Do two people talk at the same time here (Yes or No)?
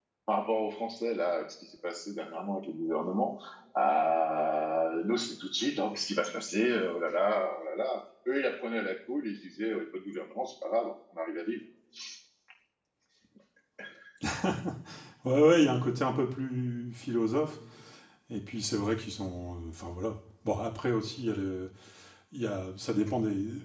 No